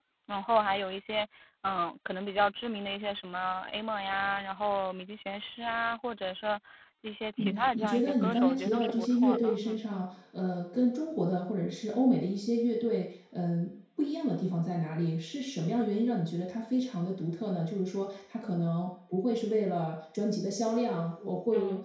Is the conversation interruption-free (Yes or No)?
No